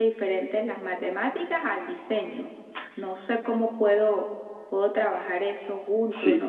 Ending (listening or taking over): taking over